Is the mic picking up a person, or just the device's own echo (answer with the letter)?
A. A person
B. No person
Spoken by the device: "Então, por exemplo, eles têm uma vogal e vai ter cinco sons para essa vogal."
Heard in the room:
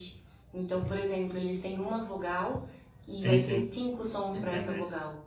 A